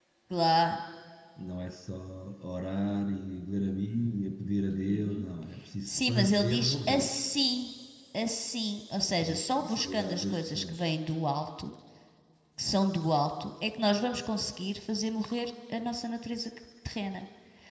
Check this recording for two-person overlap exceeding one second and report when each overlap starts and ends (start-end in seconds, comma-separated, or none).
5.8-7.1, 9.2-10.9